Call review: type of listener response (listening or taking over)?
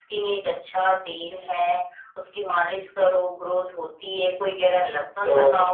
taking over